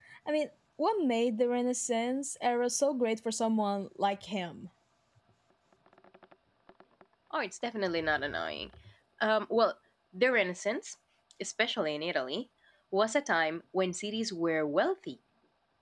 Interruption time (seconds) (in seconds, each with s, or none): none